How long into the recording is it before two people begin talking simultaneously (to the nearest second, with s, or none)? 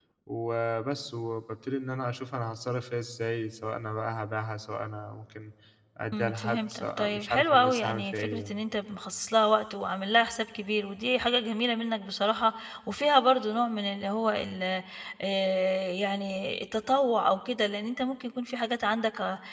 6 s